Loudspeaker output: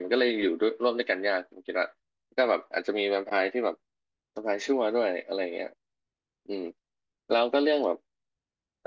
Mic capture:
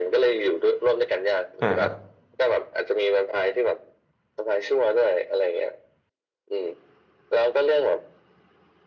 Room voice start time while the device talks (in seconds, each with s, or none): 1.6 s